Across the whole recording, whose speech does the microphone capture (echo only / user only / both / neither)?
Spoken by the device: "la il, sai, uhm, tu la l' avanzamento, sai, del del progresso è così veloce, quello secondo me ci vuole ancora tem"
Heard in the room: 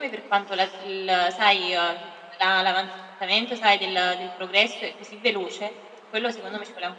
echo only